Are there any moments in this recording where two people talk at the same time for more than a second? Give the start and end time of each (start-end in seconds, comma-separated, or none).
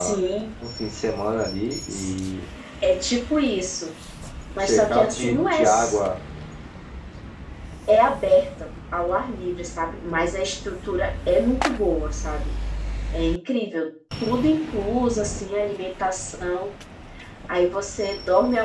4.6-6.0